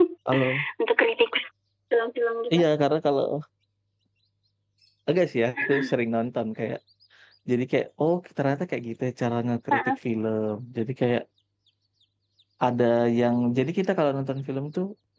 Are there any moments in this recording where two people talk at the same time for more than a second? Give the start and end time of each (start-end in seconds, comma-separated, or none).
none